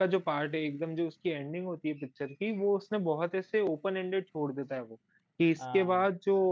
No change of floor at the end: Yes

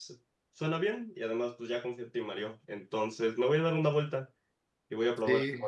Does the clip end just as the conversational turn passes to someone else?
No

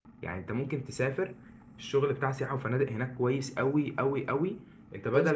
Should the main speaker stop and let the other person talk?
No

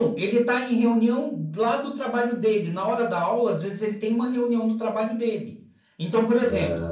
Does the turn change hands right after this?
No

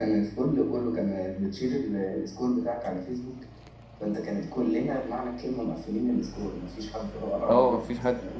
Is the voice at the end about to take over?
Yes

